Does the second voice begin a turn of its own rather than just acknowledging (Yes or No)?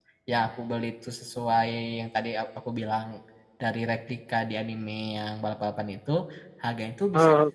No